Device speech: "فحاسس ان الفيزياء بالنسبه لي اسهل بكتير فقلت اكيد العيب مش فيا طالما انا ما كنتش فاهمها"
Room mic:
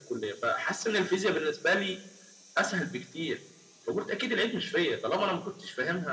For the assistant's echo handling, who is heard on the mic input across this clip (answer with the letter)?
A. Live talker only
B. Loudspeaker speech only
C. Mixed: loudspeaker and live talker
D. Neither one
B